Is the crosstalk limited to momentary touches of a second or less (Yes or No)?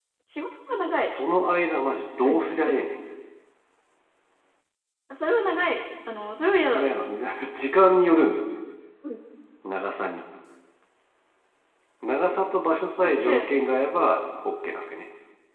Yes